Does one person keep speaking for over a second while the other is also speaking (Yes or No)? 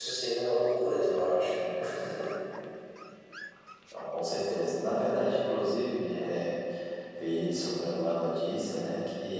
No